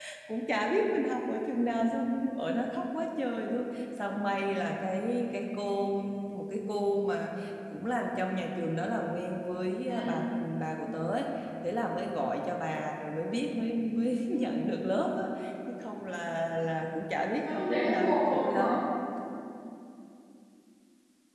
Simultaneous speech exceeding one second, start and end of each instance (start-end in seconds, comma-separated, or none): 17.4-18.8